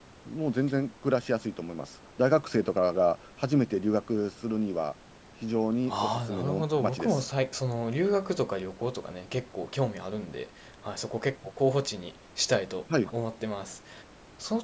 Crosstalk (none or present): present